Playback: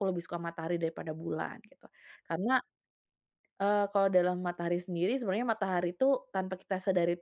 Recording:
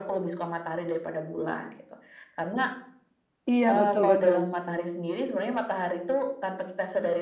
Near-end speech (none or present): present